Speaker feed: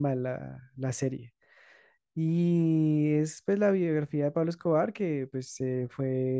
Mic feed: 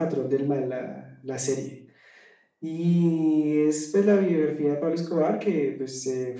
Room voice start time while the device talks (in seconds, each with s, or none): none